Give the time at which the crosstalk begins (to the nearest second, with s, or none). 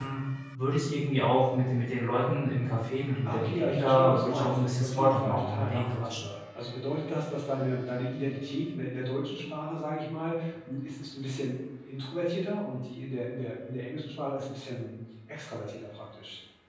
3 s